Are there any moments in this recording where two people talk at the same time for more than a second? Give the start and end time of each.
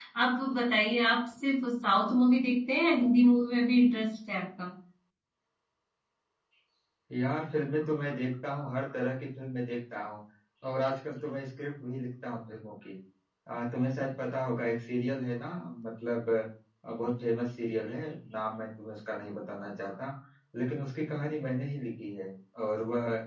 none

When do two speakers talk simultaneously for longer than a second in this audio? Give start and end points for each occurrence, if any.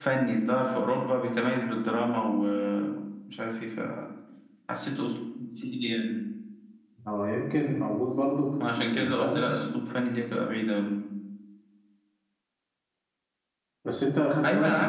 none

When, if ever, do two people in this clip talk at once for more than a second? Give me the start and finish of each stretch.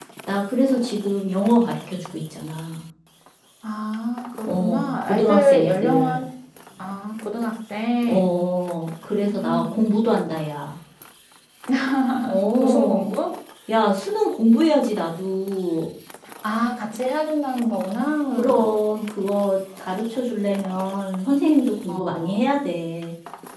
4.5-6.2

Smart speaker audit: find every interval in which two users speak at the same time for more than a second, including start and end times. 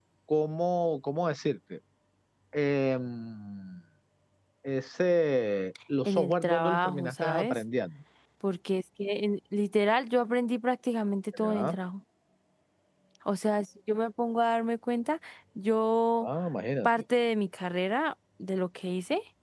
6.0-7.6

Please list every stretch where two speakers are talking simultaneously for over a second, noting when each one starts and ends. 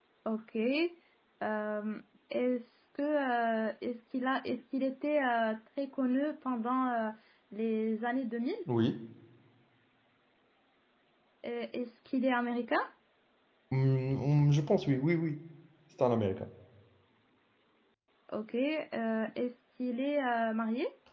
none

